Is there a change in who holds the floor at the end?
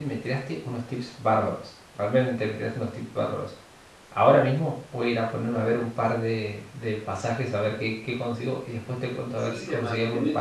Yes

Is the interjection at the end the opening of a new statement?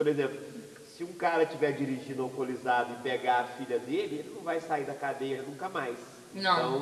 No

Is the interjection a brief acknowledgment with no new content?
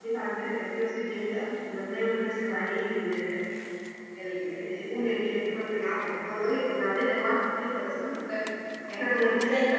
Yes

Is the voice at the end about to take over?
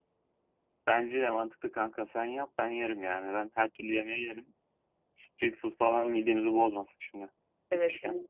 Yes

